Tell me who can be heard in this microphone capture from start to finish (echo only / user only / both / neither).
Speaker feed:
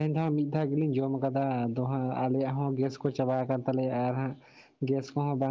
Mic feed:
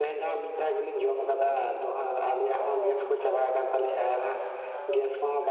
both